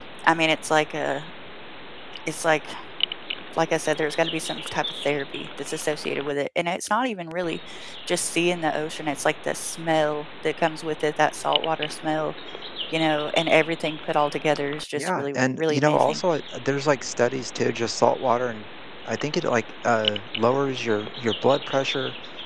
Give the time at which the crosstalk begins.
15 s

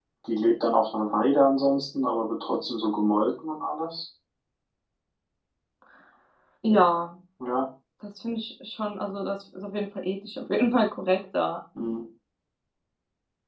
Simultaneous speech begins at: none

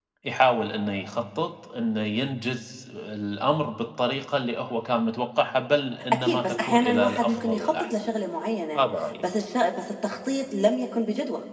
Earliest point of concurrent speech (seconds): 6 s

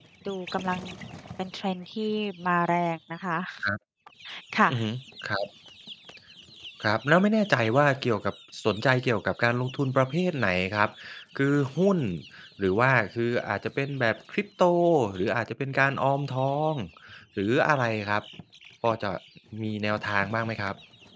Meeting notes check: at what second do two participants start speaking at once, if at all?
none

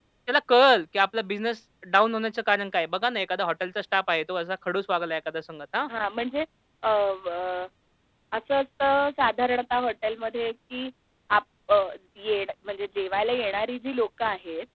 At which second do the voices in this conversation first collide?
none

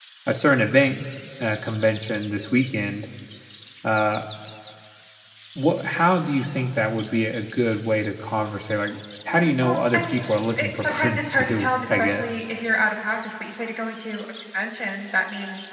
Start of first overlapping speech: 9 s

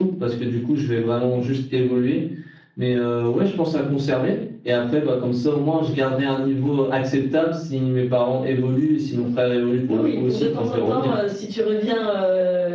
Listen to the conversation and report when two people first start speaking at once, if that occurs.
10 s

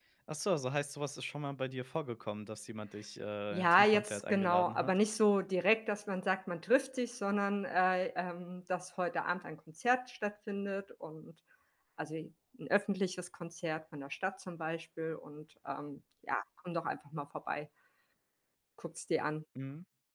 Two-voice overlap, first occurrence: 4 s

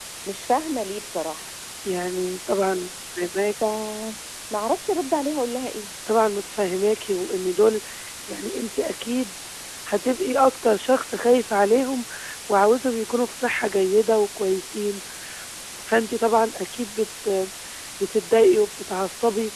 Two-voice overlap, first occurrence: none

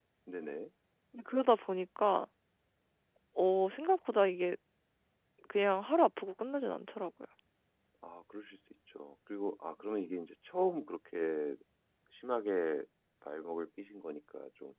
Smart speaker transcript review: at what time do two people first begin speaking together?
none

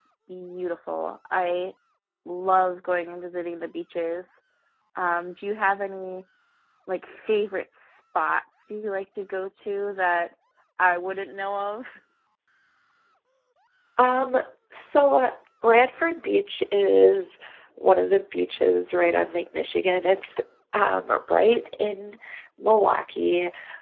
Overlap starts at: none

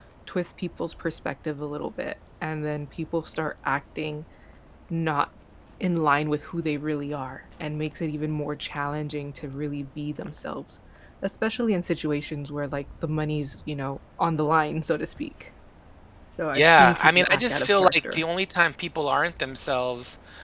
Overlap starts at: 17 s

